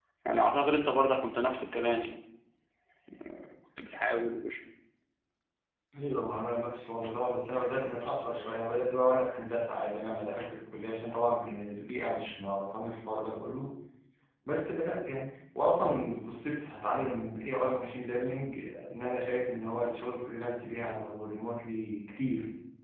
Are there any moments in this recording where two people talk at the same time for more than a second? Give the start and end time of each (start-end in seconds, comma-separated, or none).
none